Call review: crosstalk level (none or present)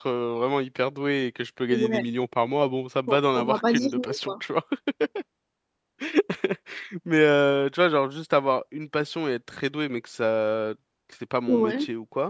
present